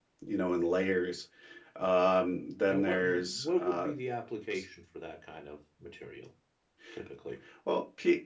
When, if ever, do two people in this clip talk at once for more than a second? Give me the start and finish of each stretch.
2.7-3.9

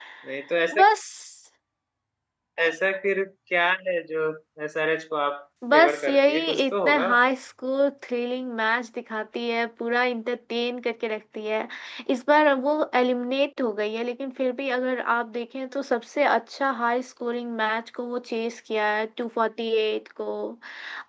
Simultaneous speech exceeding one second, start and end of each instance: 5.7-7.1

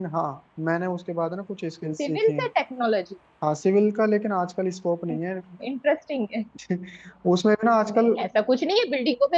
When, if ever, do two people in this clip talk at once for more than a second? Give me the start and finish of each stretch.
none

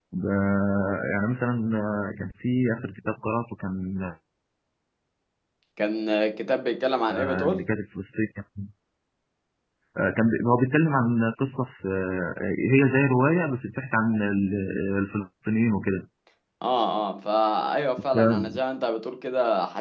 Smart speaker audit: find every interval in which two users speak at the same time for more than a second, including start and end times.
none

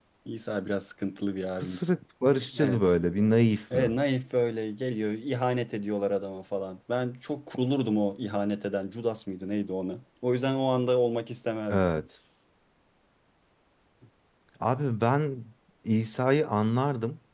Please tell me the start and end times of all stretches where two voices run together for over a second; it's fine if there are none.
none

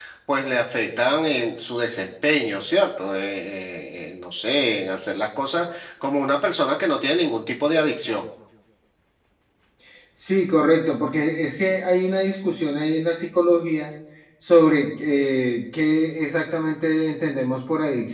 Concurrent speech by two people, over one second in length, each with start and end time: none

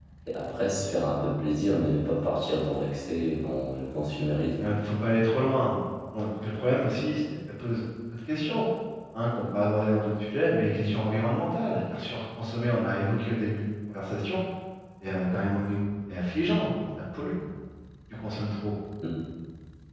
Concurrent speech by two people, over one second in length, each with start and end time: none

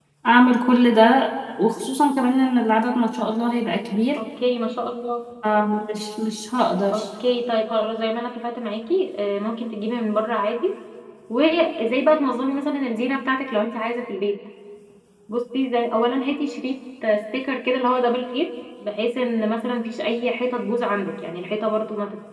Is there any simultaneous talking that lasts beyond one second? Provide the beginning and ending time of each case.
none

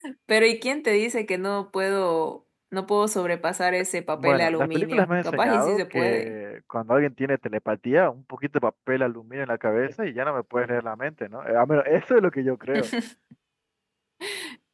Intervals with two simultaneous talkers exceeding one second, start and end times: 4.2-6.3

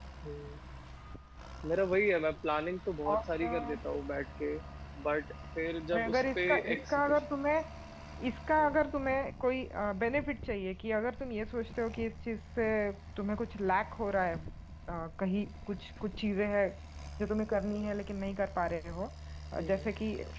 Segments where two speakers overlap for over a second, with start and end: 5.9-7.2

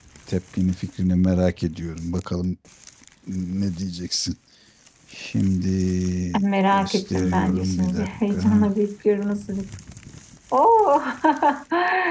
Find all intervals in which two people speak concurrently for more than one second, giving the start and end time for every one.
6.7-8.7

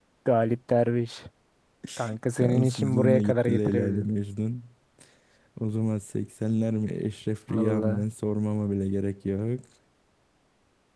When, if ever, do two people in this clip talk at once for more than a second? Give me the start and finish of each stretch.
2.4-4.1

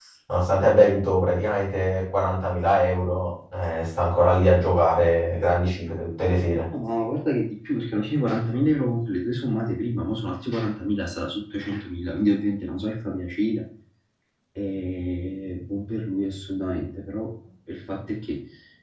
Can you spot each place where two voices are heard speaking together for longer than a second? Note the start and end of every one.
none

